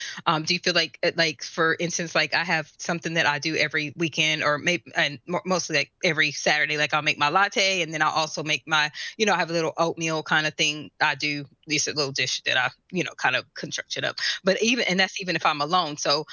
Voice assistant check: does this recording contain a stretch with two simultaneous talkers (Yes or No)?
No